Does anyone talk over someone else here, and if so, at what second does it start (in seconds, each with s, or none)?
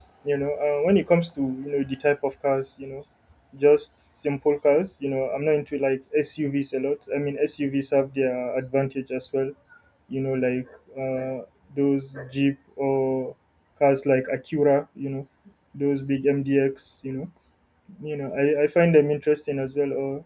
none